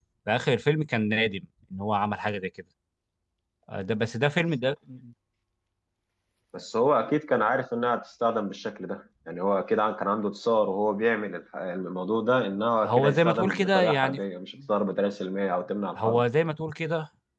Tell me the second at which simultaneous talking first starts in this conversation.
12.8 s

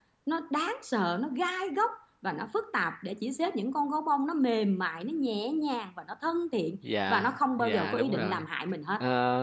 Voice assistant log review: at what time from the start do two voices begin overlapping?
7.1 s

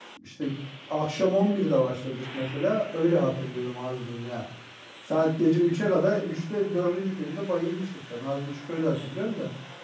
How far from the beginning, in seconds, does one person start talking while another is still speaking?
none

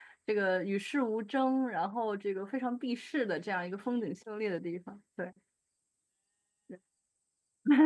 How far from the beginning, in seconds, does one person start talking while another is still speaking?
none

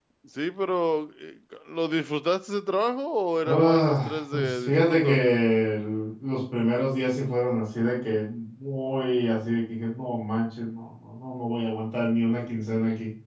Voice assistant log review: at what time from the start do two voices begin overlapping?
3.5 s

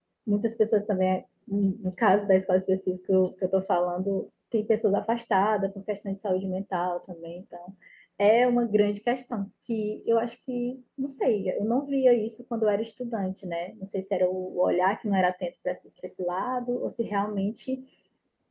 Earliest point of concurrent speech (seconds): none

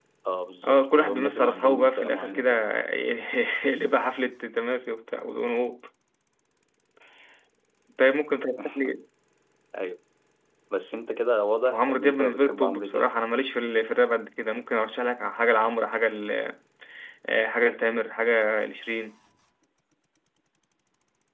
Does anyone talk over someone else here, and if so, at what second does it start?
0.6 s

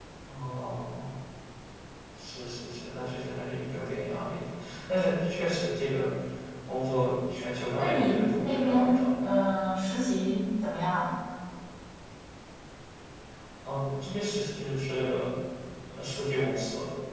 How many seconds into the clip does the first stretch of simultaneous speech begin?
7.7 s

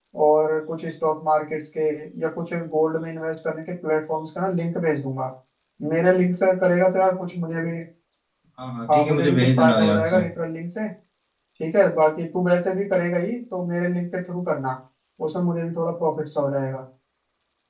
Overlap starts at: 8.9 s

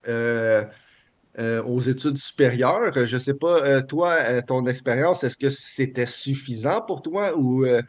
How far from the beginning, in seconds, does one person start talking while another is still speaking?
none

